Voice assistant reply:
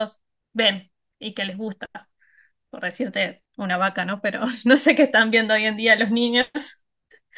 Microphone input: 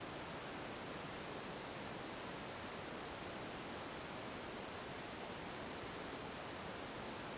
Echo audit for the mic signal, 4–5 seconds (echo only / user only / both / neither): neither